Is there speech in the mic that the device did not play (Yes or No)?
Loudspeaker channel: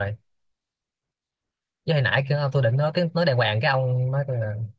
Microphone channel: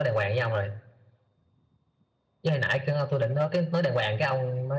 No